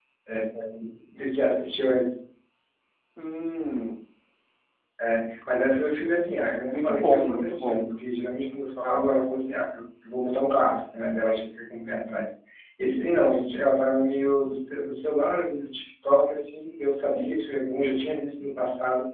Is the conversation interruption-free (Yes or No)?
No